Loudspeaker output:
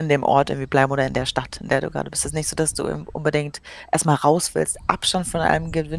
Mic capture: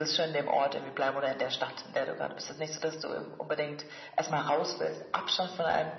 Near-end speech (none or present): none